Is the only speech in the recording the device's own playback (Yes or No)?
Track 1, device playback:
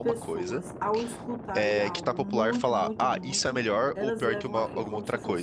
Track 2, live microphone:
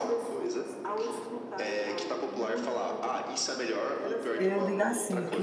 No